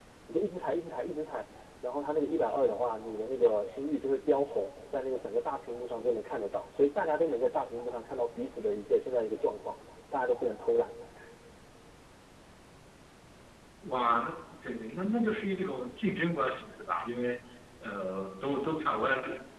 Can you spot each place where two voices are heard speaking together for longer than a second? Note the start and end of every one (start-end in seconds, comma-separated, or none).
none